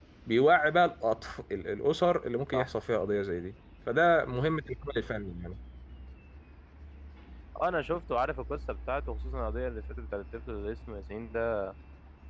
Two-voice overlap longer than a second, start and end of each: none

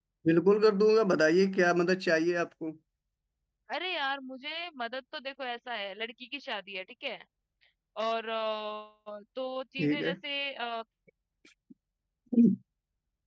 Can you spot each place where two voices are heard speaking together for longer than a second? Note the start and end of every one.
none

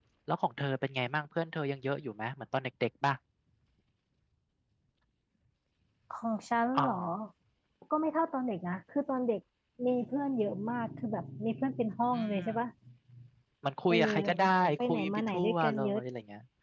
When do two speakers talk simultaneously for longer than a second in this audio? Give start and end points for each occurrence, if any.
14.8-16.0

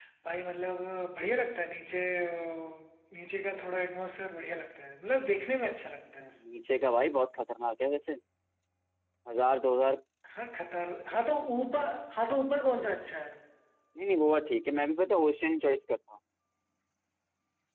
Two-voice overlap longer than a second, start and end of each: none

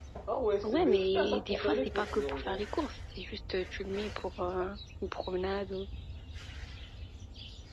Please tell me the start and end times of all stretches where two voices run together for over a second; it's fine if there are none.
0.6-2.6

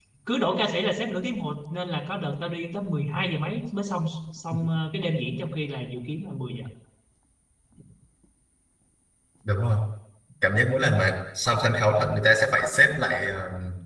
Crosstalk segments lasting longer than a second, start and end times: none

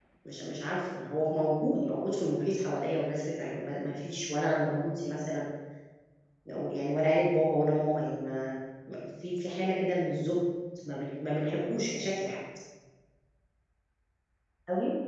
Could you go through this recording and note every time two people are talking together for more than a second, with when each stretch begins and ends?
none

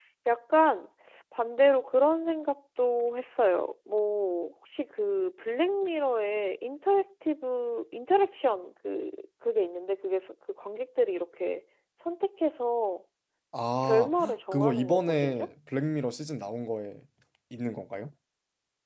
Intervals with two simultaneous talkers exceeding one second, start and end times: 13.8-15.5

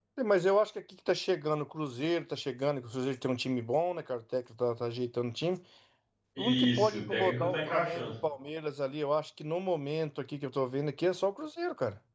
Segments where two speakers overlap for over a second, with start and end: 6.4-8.1

